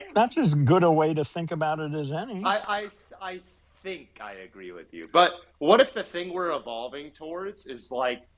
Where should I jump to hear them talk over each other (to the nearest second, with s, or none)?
none